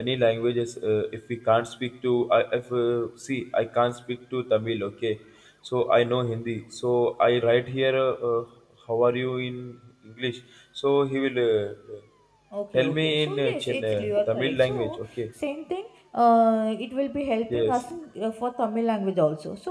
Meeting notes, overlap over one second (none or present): present